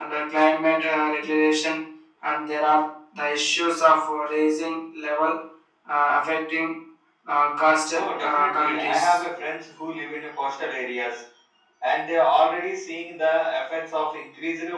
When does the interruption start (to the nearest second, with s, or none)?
8 s